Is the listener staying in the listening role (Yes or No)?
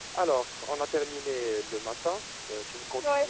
Yes